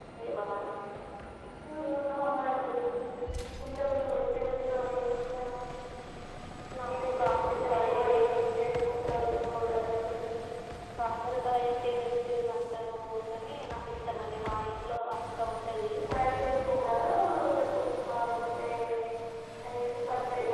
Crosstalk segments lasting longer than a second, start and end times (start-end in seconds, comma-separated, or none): 6.9-8.4